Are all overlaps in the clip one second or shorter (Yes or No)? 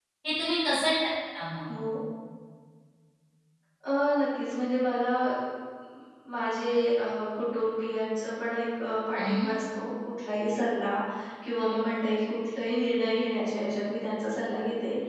Yes